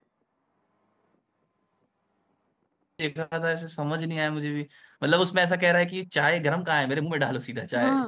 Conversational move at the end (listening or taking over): taking over